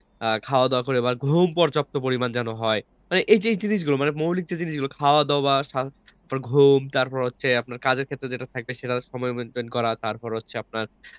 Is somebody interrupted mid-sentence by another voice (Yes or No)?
No